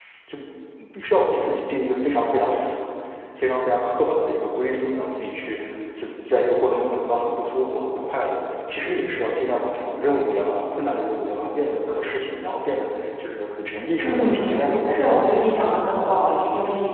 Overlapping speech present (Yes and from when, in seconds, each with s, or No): Yes, from 14.0 s